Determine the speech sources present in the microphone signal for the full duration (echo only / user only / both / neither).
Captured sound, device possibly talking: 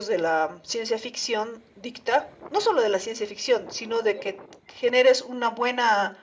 echo only